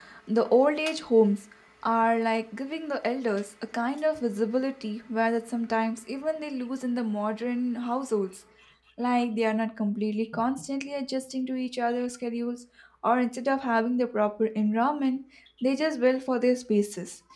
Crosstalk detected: No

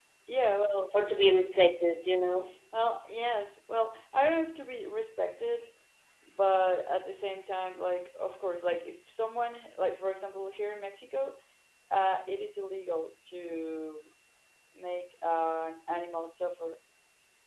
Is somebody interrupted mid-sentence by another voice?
No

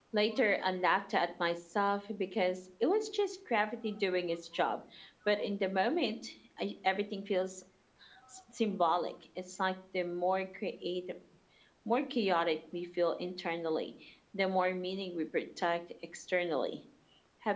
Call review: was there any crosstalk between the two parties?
No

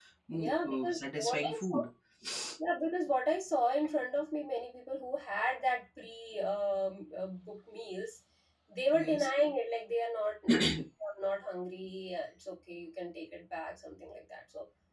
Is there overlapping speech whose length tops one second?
Yes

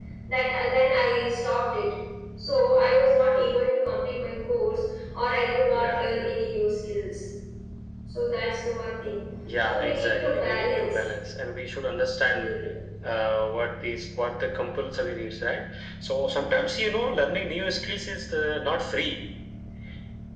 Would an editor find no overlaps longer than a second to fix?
No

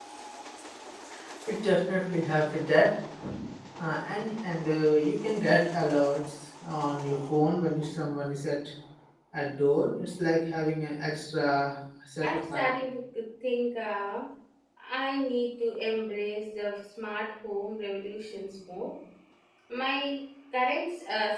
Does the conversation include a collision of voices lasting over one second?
No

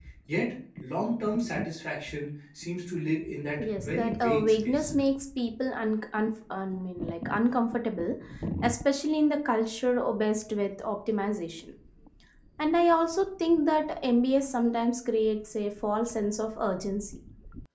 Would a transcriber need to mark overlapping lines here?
Yes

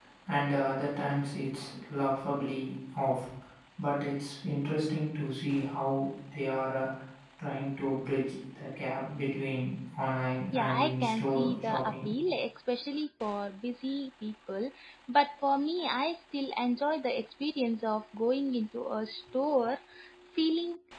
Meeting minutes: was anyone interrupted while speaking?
Yes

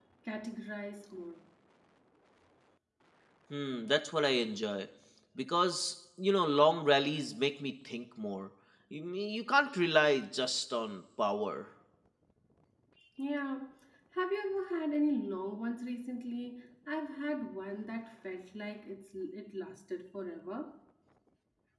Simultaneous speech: No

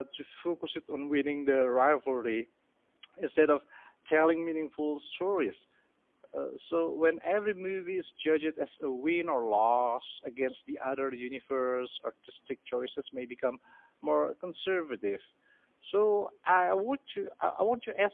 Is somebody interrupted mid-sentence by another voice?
No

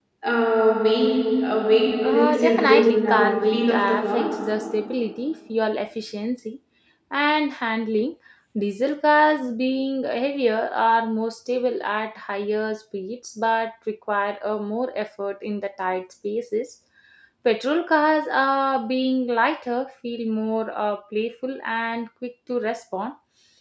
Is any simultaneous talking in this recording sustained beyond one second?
Yes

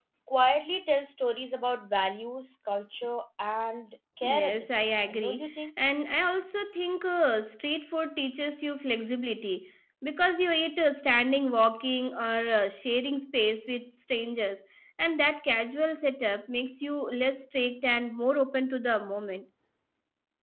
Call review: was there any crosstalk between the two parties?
Yes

